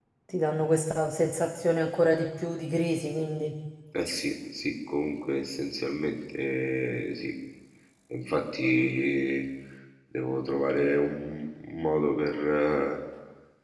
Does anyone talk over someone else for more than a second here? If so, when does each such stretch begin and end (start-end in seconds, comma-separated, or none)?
none